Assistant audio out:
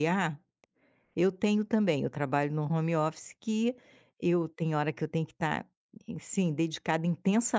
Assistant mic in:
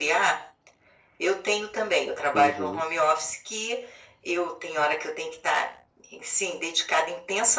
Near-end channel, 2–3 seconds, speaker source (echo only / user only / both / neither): both